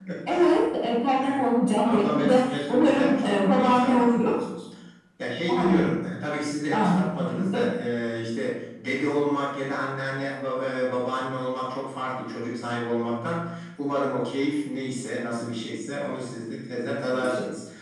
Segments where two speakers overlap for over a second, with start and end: 1.8-4.3

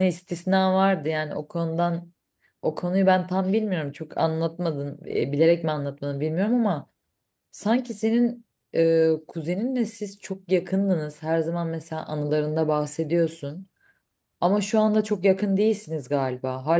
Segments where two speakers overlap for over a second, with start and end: none

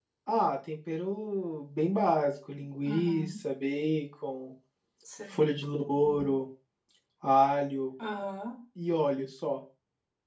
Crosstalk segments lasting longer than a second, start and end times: none

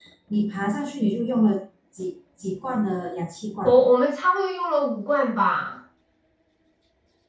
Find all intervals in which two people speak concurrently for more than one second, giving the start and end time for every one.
none

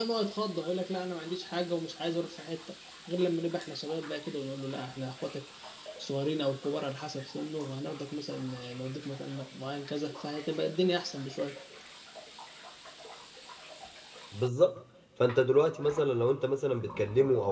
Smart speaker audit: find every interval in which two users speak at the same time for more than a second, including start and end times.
none

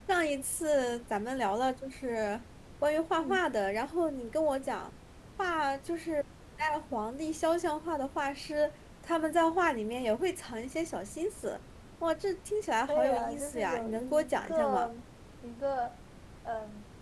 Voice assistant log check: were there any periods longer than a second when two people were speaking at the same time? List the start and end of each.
12.9-14.9

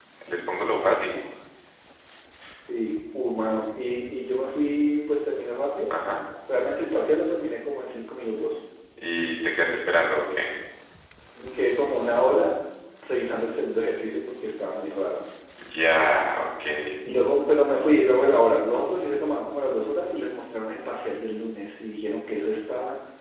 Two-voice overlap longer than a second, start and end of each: none

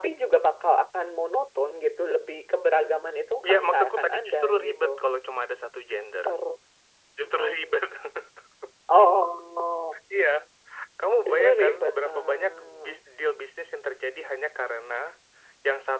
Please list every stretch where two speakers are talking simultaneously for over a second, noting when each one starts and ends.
3.4-4.9, 11.2-12.9

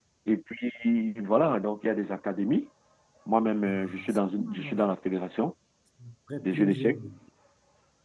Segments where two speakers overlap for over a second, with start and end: 3.7-4.9

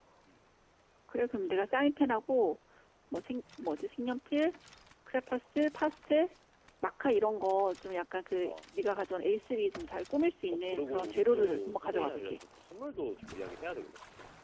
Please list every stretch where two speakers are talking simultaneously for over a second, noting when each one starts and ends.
10.5-12.4

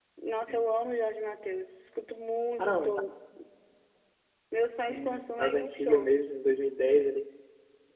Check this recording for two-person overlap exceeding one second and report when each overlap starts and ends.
4.9-6.1

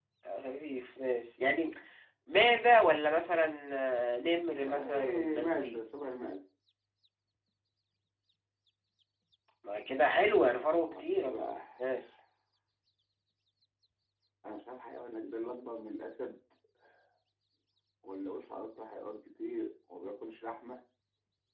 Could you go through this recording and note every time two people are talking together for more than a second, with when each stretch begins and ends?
4.6-5.8

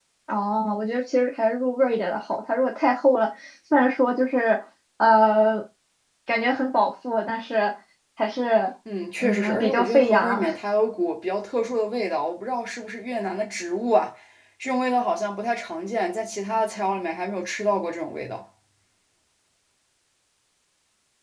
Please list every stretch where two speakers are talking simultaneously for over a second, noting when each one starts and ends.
9.2-10.6

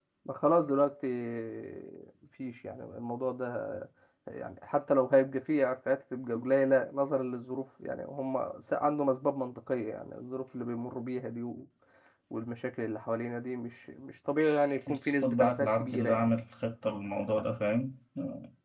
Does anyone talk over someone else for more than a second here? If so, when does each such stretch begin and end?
14.9-16.4

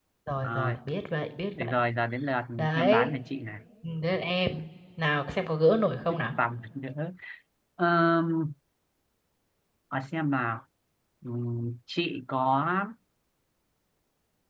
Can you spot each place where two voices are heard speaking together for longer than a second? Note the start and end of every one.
none

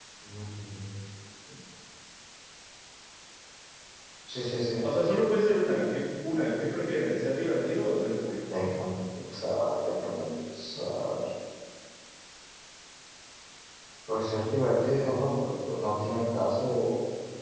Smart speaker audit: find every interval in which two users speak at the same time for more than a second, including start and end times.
none

